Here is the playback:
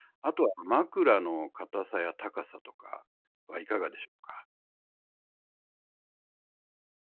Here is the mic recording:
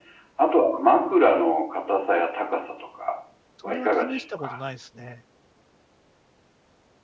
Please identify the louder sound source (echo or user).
echo